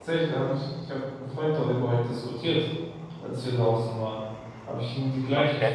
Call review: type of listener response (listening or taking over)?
listening